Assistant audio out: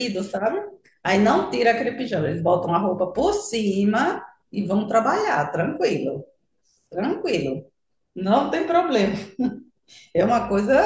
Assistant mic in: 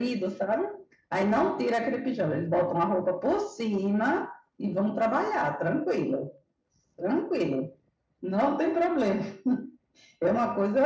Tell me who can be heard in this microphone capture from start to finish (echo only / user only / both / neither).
echo only